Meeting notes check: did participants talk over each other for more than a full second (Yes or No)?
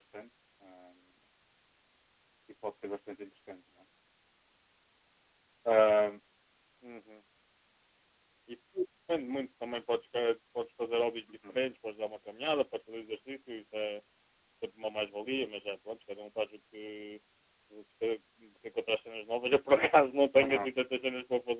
No